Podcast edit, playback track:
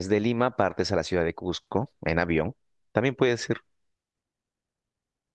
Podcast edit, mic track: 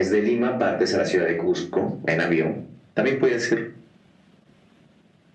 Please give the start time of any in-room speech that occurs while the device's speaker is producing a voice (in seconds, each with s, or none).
none